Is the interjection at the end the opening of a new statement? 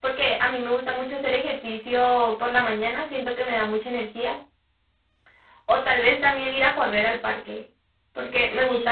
No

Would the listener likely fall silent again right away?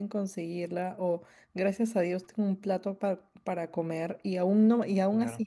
Yes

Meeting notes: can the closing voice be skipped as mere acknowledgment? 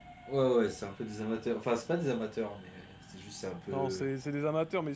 No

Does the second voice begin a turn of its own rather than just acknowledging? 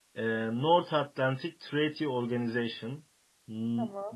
No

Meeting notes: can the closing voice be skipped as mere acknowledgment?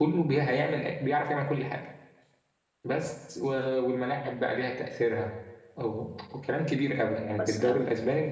Yes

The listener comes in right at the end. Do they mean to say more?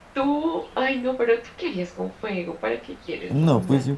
Yes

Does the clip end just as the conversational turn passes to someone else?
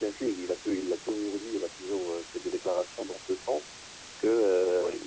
No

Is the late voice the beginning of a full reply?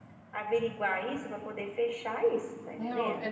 Yes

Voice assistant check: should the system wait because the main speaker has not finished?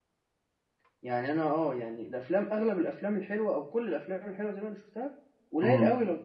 Yes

